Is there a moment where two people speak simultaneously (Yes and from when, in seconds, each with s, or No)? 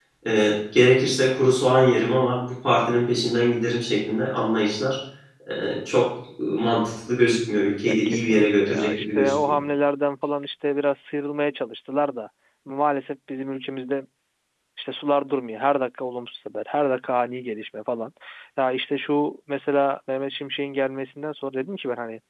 Yes, from 7.9 s